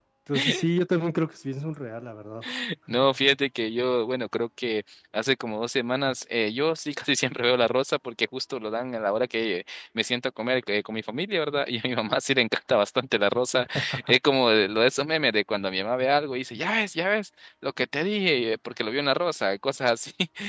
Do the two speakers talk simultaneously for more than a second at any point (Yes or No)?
No